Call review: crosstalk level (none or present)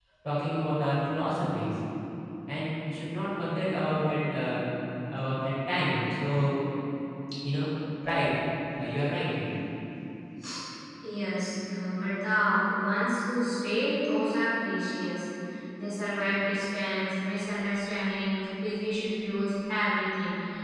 none